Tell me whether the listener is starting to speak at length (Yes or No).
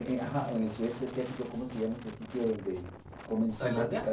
No